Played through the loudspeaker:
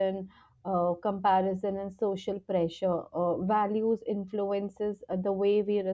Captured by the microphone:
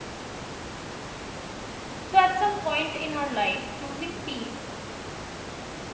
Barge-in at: 2 s

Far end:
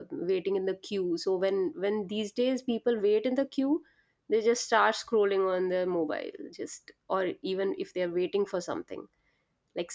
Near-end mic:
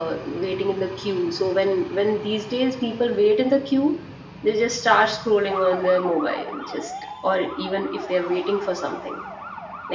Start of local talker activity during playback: none

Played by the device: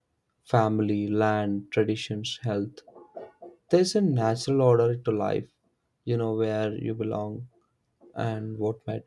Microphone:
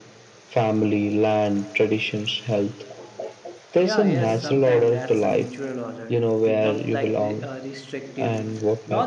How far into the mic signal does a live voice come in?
4 s

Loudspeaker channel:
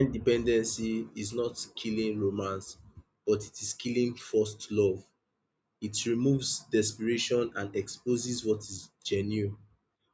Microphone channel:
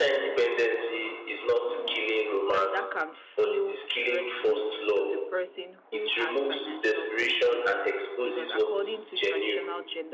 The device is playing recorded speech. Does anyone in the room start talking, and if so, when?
3 s

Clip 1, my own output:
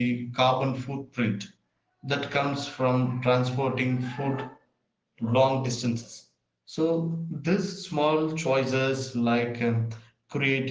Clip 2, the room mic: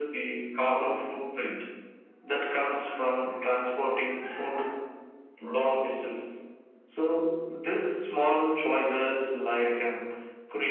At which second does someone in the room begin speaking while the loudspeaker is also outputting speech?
none

